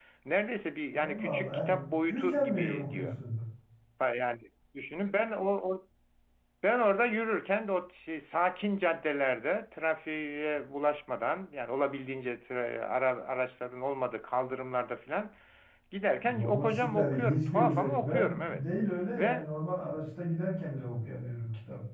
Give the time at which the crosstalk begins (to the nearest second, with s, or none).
1 s